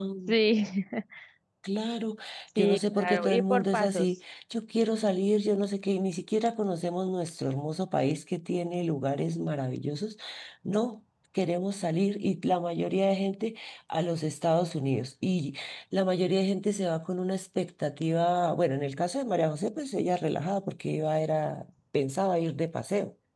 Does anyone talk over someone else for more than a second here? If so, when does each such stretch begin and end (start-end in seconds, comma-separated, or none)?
2.6-4.1